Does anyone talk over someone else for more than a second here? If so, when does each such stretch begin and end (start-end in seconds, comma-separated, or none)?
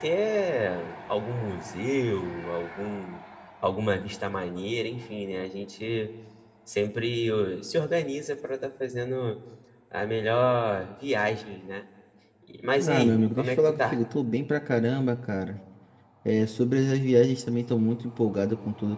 12.8-14.0